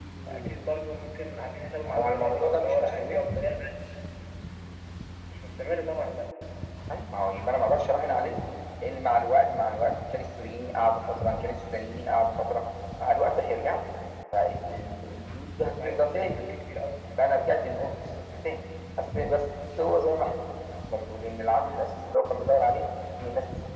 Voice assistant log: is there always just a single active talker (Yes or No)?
No